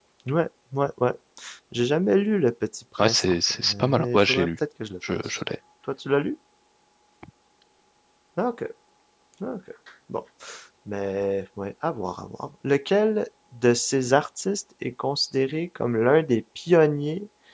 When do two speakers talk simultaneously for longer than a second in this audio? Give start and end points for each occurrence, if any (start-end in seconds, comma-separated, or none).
3.0-4.5